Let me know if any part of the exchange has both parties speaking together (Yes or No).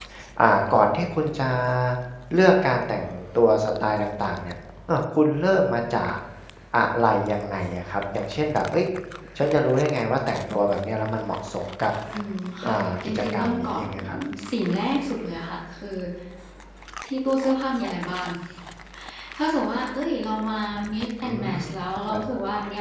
Yes